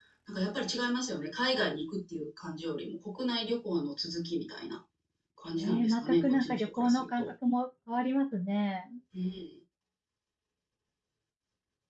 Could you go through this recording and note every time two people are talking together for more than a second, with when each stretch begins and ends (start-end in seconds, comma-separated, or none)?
5.6-7.3